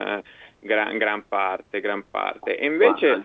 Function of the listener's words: listening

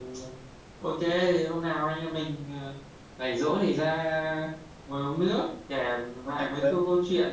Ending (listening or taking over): listening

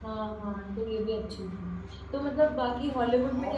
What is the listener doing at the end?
listening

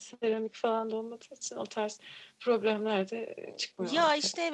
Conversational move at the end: taking over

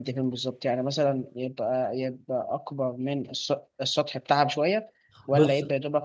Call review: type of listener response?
listening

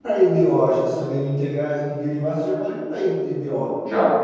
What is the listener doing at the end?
taking over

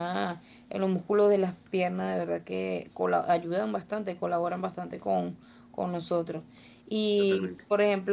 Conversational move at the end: listening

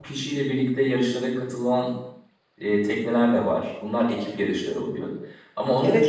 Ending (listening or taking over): listening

